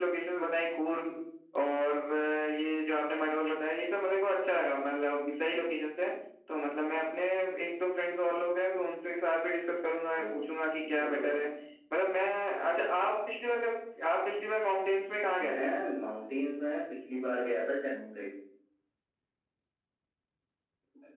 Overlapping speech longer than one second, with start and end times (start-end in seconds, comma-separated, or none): none